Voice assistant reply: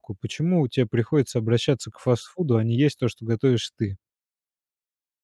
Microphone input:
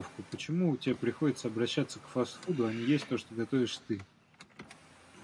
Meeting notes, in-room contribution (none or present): none